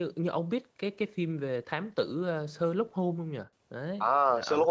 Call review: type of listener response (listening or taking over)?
taking over